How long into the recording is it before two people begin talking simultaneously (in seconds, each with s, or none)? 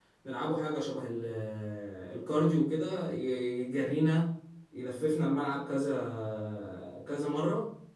none